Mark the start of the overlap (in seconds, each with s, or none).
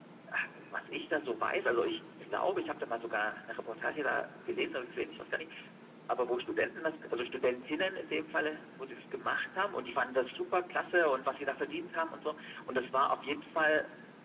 none